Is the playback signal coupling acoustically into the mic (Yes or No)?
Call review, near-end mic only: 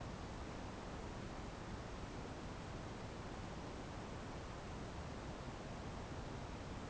No